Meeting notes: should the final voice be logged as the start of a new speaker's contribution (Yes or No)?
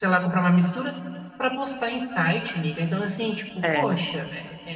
No